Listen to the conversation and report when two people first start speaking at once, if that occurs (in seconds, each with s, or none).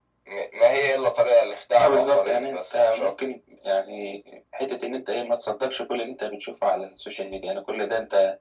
1.8 s